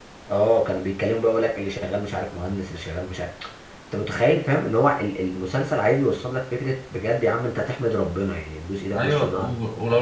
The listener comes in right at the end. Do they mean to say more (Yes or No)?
Yes